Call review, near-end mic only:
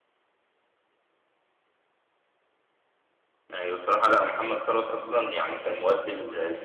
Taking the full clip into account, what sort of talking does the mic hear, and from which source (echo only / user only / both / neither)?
user only